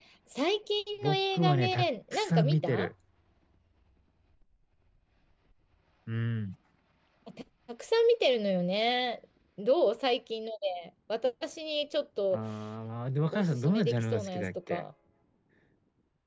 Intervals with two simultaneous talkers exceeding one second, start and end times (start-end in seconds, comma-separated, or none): 1.0-2.9, 13.3-14.8